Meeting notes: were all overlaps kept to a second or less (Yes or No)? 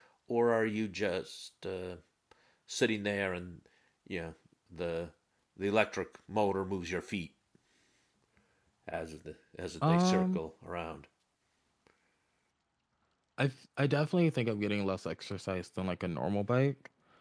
Yes